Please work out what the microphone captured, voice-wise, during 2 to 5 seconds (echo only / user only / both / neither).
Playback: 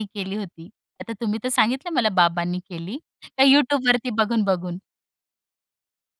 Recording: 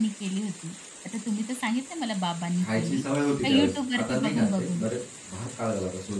both